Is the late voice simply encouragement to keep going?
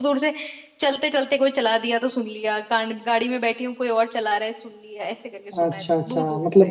No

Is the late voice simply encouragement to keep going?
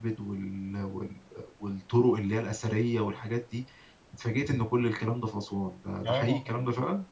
No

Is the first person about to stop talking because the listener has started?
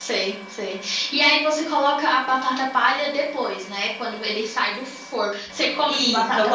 Yes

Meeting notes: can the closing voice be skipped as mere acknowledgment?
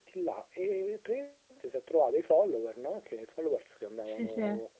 Yes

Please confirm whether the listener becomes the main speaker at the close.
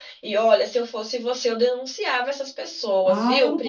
Yes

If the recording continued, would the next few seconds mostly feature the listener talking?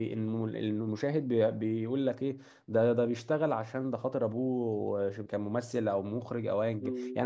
Yes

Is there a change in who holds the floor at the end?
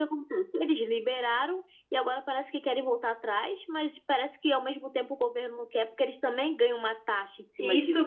Yes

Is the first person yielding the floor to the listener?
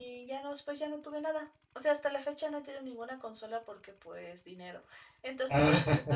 No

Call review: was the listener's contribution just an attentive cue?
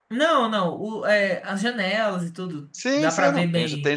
No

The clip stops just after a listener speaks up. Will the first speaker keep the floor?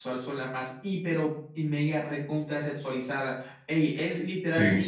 Yes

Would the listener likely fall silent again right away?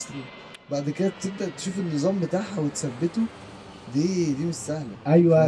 No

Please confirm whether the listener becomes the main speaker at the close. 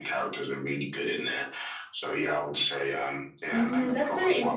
Yes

